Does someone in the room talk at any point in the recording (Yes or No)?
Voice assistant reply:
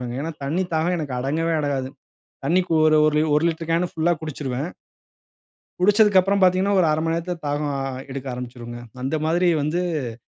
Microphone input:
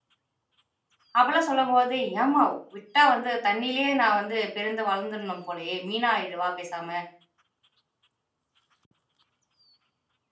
Yes